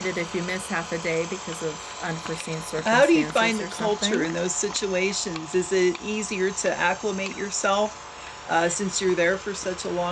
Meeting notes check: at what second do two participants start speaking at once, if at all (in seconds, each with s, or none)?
2.8 s